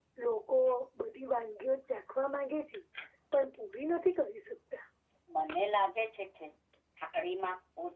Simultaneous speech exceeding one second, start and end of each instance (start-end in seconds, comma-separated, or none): none